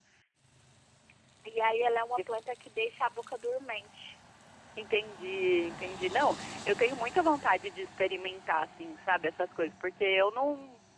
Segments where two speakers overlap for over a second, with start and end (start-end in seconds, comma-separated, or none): none